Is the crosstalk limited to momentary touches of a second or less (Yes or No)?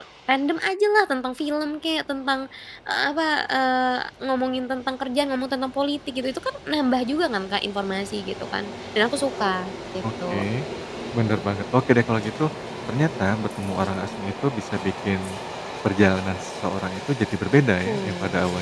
Yes